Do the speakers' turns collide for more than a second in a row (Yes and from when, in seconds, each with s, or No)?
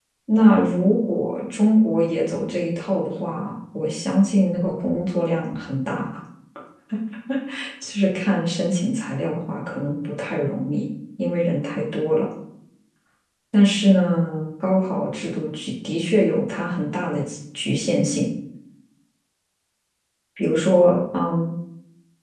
No